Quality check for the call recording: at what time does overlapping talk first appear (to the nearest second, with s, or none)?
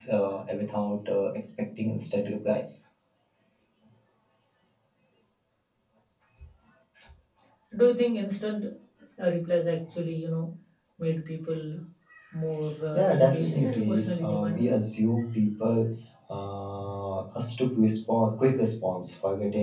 13 s